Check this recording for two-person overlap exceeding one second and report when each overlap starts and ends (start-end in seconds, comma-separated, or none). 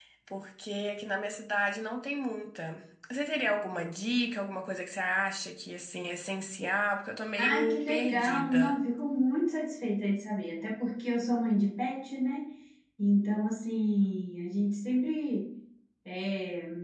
7.4-8.8